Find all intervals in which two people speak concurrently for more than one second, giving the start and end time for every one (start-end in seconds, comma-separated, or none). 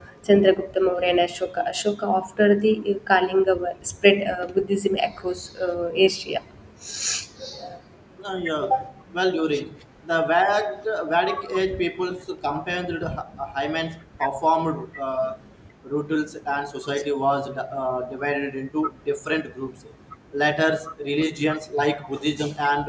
none